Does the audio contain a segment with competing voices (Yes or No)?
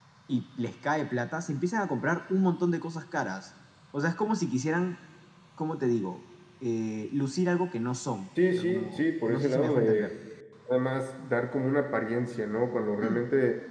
Yes